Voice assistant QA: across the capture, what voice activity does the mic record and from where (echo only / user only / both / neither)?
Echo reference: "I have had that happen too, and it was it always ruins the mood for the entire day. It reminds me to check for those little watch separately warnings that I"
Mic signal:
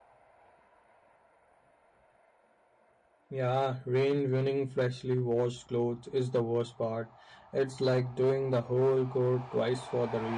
user only